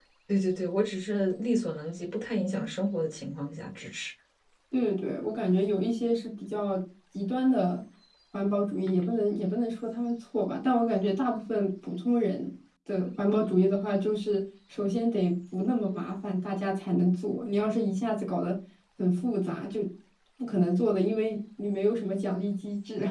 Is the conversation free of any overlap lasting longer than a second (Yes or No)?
Yes